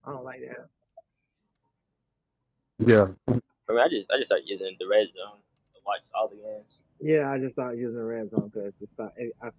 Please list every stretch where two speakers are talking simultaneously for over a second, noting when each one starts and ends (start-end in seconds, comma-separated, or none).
none